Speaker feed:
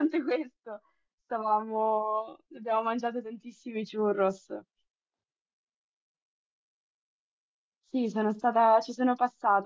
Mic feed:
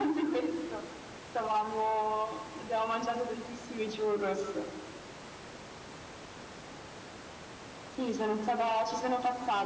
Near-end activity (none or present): none